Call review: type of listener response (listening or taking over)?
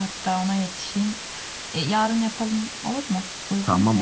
taking over